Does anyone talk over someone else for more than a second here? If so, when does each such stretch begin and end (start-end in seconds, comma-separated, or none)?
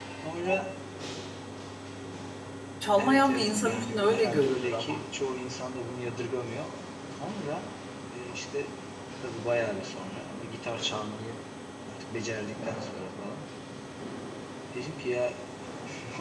3.0-5.0